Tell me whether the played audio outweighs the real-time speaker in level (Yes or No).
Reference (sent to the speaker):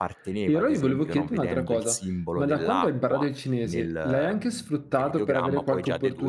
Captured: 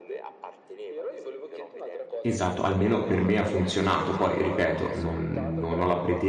No